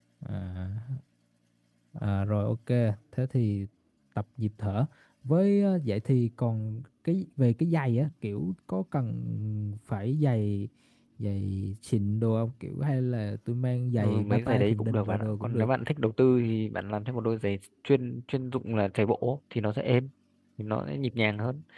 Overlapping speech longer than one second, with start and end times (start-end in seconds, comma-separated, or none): 14.0-15.7